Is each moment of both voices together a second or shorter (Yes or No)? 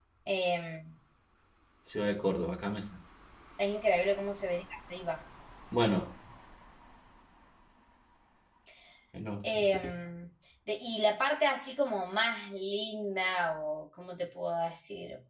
Yes